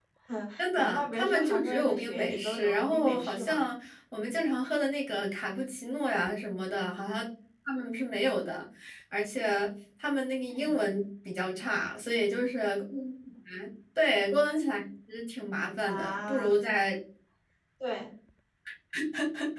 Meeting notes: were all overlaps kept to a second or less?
No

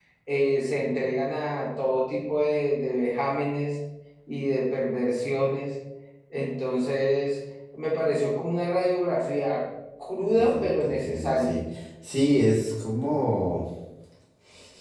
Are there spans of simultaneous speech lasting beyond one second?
Yes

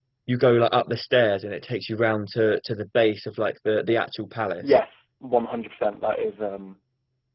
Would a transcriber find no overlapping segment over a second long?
Yes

